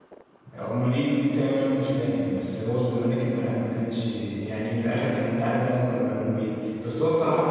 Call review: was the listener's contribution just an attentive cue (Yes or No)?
Yes